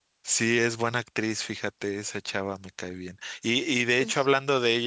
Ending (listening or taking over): listening